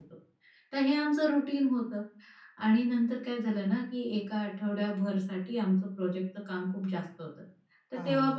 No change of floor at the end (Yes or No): Yes